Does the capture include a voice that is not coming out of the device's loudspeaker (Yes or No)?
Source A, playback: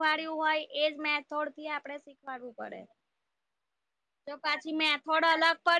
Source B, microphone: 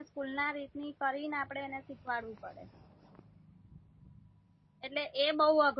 Yes